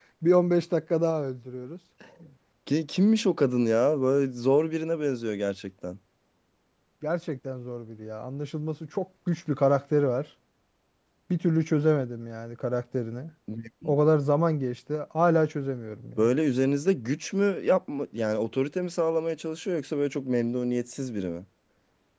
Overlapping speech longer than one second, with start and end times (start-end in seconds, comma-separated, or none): none